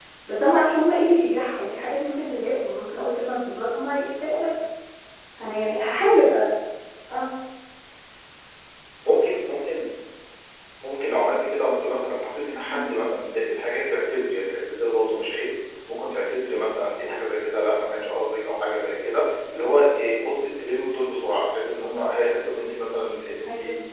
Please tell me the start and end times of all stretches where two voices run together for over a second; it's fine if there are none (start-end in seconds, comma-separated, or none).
none